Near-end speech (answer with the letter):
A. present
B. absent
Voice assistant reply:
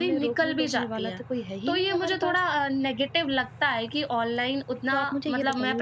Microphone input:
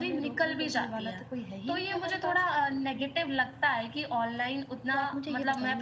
B